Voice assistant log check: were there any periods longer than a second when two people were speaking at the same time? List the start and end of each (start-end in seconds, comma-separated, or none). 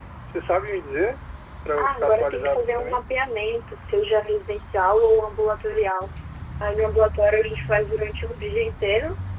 1.8-3.0